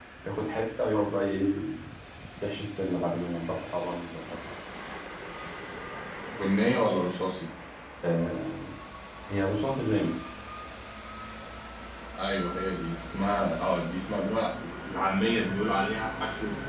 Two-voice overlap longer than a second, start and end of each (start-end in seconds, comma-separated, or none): none